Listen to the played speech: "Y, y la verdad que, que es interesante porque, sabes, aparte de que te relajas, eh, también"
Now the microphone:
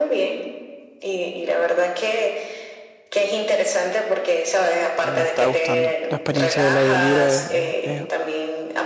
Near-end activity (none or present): present